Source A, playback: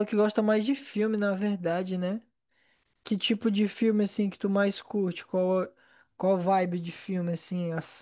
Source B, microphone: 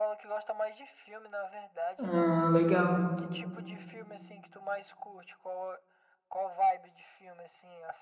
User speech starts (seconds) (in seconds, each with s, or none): 2.0 s